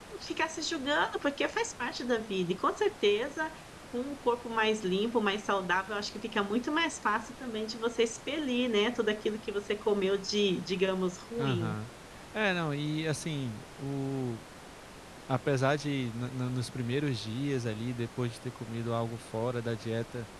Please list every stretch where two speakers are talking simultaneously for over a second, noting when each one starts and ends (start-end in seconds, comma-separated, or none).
none